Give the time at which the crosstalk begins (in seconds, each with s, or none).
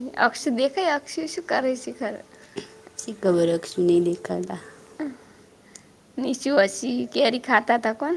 none